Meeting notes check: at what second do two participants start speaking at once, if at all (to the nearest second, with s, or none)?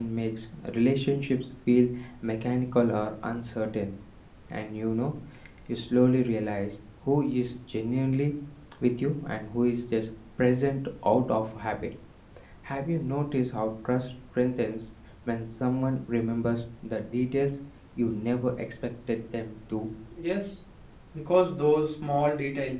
none